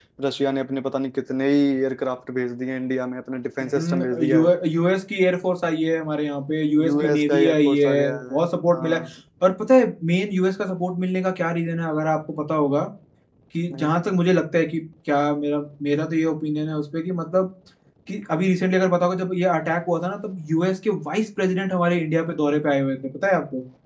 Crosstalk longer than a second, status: present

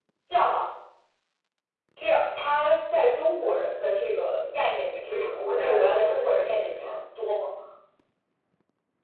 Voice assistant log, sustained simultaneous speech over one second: present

